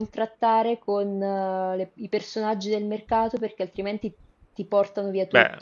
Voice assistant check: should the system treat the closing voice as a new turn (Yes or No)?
Yes